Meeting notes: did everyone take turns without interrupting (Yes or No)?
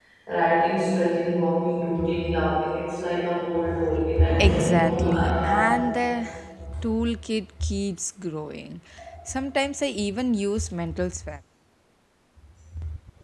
No